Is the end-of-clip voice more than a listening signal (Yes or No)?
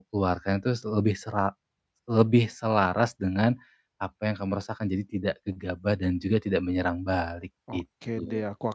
Yes